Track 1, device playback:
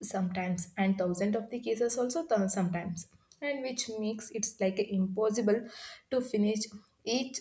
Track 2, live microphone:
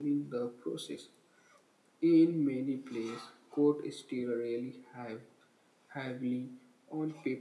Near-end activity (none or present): present